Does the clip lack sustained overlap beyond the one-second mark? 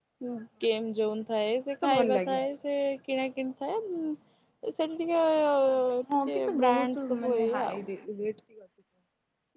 No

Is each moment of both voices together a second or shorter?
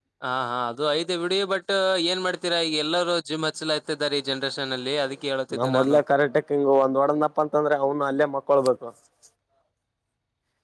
Yes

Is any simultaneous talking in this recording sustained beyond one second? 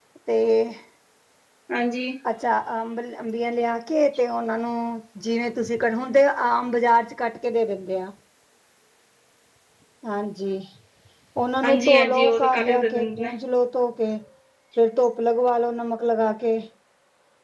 Yes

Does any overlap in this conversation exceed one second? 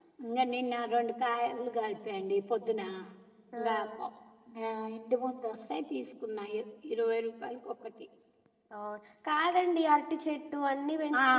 No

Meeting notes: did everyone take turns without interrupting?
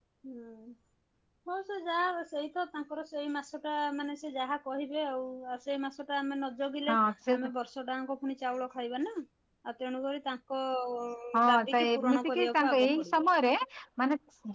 No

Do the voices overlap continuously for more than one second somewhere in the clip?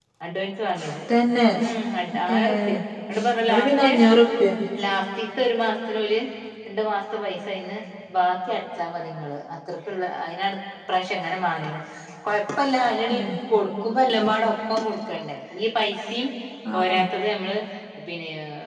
No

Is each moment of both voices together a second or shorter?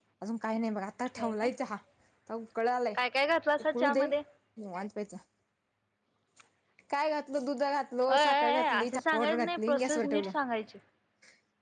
No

